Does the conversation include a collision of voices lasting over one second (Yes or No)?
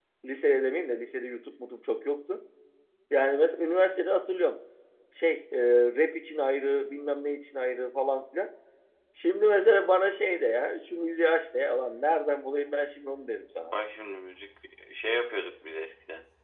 No